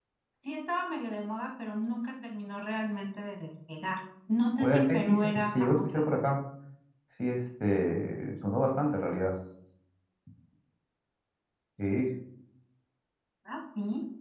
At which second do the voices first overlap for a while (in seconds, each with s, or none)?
4.6 s